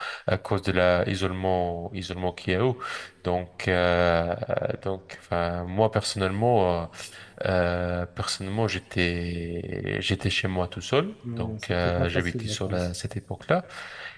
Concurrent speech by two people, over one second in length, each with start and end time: 11.4-12.9

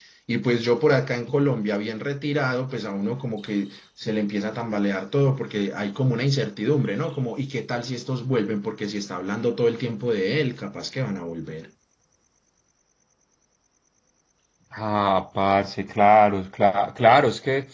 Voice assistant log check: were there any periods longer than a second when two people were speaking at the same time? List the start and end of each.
none

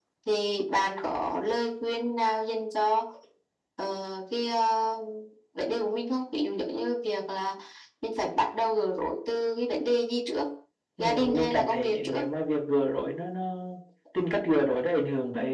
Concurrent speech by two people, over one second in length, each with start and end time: 11.0-12.2

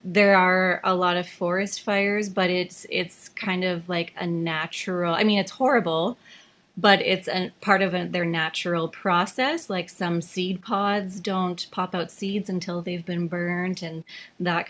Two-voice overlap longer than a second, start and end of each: none

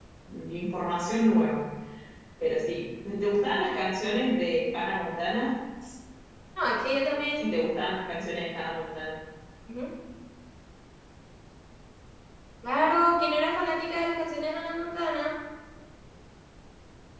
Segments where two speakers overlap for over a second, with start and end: none

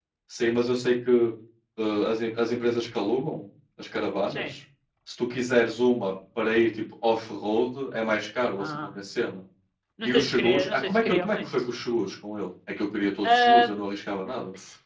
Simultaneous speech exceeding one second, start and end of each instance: 10.0-11.5

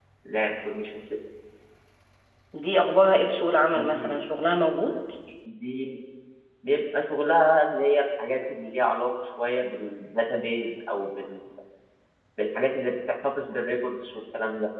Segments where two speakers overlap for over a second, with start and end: none

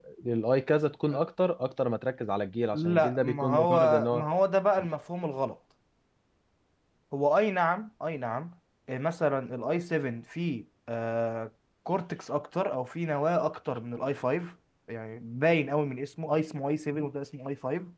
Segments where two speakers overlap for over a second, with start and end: 2.7-4.3

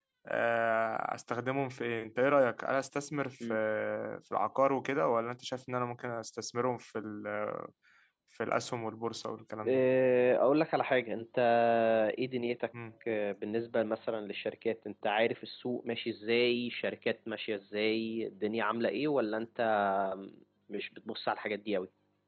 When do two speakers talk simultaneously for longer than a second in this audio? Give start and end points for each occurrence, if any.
none

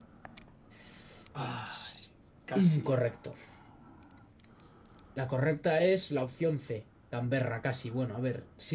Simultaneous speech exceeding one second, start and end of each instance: none

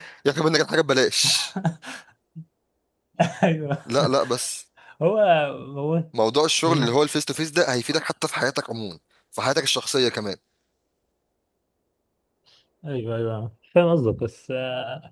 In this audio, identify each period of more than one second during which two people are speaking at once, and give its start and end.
none

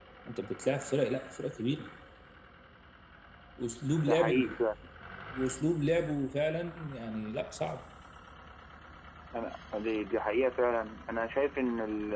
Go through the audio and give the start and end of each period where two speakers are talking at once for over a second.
none

